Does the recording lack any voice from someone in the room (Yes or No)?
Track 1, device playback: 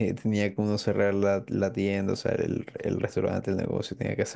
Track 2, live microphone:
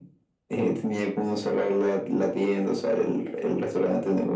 Yes